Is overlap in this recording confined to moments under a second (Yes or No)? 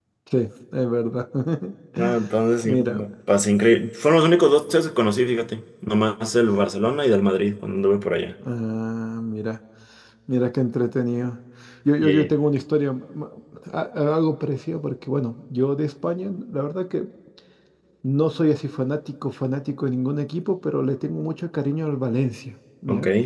Yes